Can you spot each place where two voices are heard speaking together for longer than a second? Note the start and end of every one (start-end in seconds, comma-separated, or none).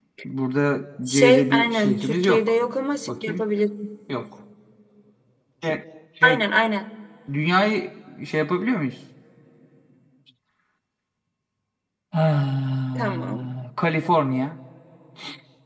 1.1-2.5